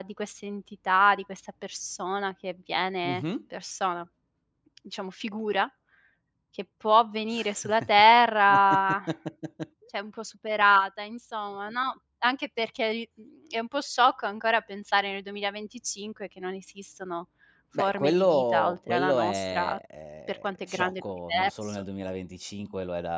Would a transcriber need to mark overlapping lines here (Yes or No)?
Yes